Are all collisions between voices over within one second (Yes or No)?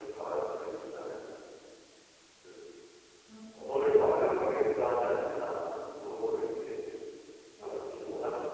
No